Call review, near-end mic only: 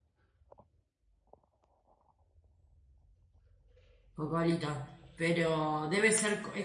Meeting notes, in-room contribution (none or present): present